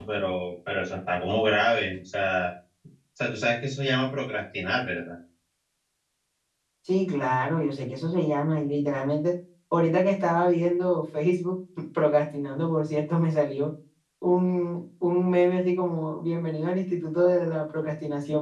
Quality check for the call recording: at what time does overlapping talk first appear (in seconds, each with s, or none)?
none